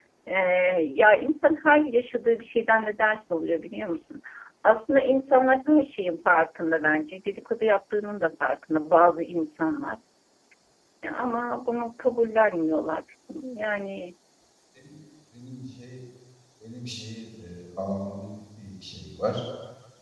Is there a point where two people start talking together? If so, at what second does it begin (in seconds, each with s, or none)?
none